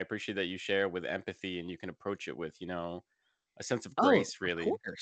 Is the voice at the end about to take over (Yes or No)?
Yes